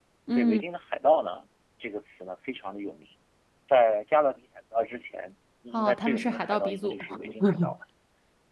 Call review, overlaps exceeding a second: present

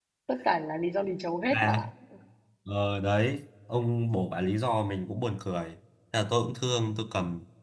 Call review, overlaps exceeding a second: none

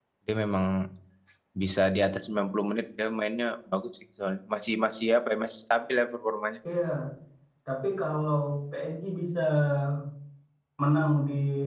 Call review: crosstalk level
none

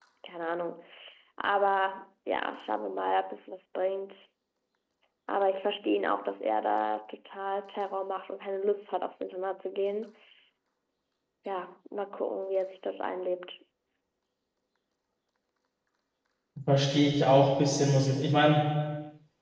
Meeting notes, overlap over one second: none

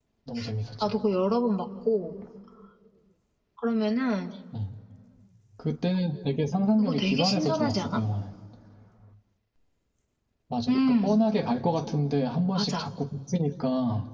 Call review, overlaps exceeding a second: present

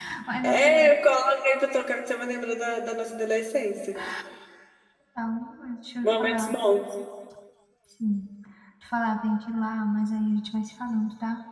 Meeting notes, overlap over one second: none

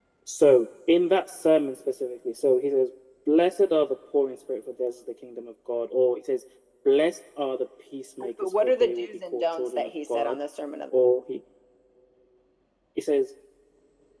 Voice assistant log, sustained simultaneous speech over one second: present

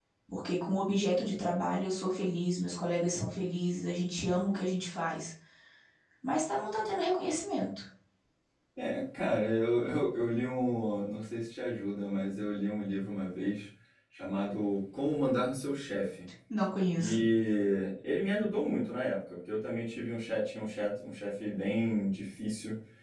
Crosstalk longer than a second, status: none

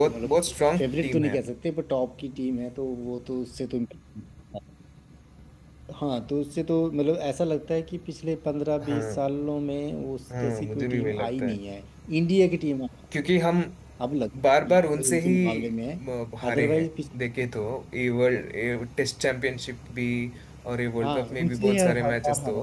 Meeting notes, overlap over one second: present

